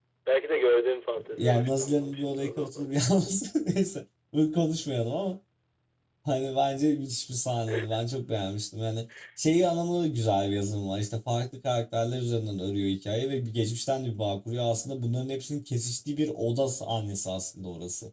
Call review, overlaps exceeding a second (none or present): present